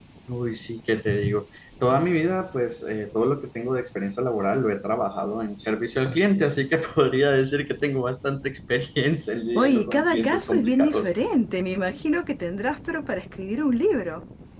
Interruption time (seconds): 10 s

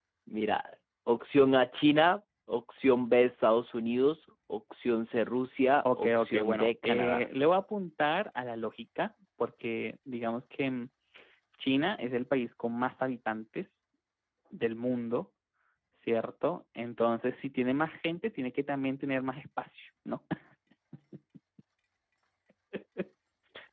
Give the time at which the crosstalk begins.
6 s

